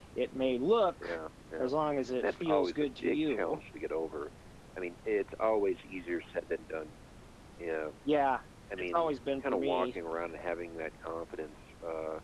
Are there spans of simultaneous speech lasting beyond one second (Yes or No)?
Yes